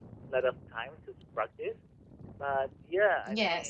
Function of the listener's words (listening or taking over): listening